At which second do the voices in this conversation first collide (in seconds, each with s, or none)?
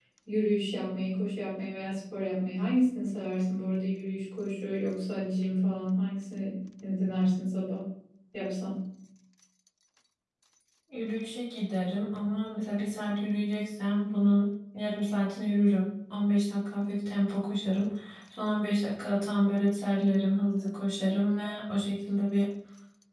none